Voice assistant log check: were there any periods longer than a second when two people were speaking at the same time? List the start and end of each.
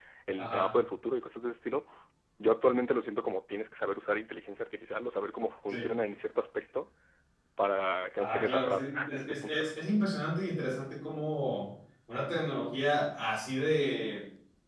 8.2-9.7

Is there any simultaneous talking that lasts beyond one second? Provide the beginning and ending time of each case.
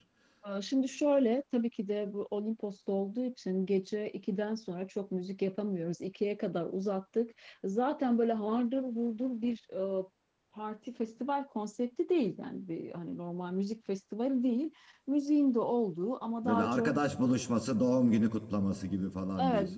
none

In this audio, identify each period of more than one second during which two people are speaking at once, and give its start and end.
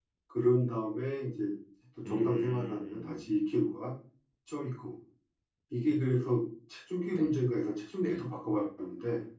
2.0-3.2

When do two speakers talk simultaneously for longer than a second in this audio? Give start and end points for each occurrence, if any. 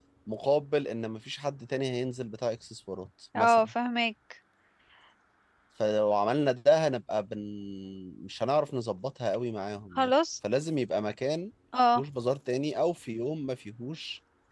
none

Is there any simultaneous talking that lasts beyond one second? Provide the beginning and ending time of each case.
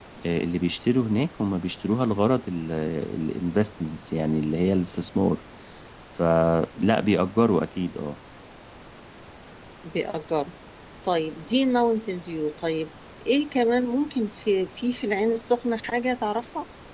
none

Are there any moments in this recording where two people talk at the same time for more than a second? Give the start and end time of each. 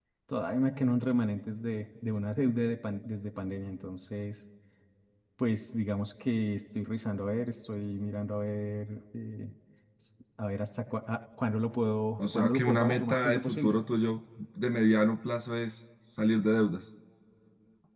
12.2-13.8

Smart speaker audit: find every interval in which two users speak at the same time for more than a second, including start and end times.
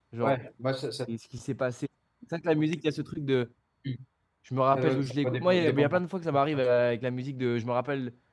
4.8-6.0

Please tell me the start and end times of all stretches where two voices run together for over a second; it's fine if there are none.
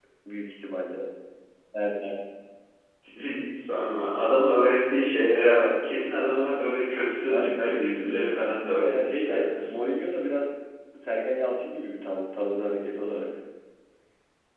7.3-9.7

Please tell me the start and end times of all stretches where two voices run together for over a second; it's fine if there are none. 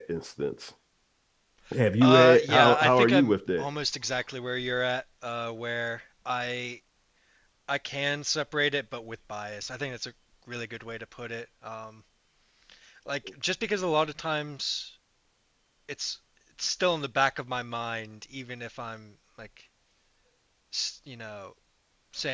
2.0-3.7

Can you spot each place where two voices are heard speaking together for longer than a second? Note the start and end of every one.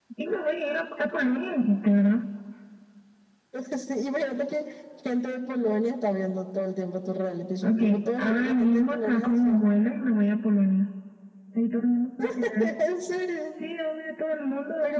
7.6-9.6

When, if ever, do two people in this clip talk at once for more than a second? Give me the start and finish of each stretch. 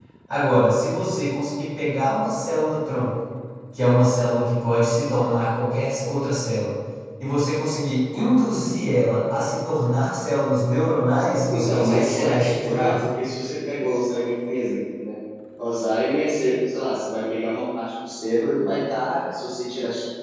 11.5-12.9

